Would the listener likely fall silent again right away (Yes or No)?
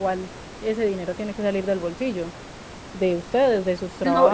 No